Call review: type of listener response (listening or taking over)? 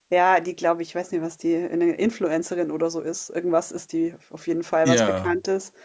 listening